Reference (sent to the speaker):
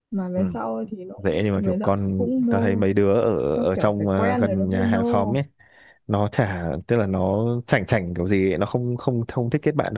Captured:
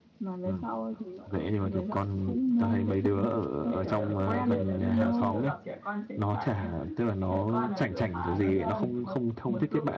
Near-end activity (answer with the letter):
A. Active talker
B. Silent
A